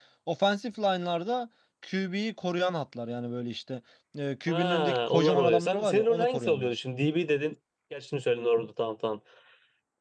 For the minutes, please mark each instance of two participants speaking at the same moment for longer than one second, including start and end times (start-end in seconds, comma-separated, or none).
4.5-6.7